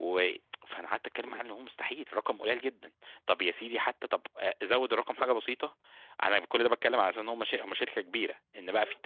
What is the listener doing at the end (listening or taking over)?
listening